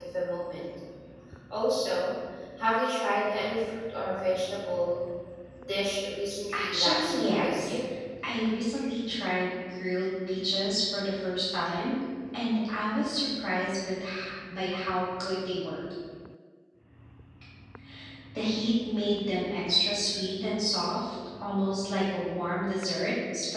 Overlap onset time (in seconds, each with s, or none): 6.5 s